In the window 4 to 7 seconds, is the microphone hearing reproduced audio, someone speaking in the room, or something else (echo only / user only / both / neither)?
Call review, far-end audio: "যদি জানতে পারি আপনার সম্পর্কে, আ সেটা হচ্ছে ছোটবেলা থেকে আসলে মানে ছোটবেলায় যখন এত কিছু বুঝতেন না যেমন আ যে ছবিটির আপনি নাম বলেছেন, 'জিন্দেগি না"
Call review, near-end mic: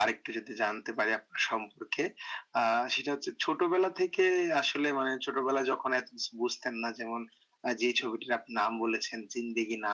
echo only